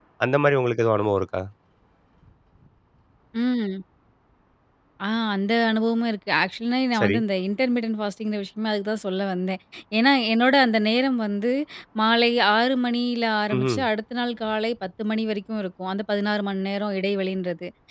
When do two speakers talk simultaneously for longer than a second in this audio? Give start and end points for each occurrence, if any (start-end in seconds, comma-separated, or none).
none